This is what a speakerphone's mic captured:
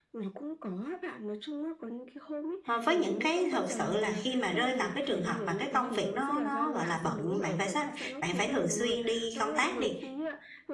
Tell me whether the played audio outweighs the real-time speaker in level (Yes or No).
No